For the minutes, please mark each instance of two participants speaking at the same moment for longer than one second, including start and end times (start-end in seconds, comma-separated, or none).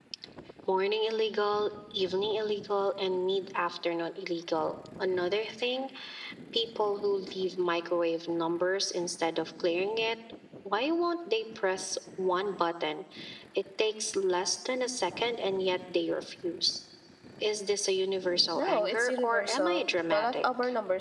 18.6-20.4